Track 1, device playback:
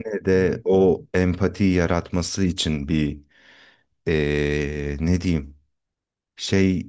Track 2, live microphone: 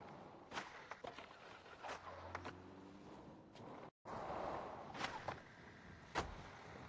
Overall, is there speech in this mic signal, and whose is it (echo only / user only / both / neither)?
neither